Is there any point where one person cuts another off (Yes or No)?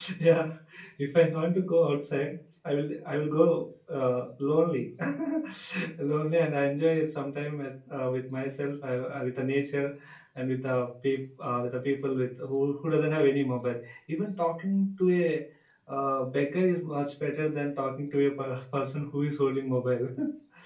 No